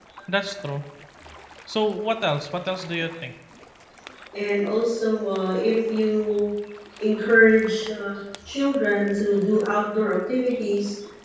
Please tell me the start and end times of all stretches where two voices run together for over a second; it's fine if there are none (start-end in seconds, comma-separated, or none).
none